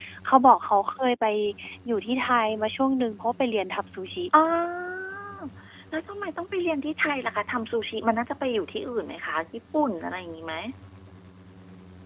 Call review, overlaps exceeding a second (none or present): none